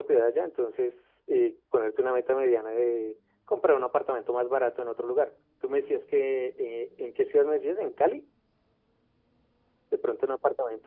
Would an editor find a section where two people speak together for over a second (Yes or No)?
No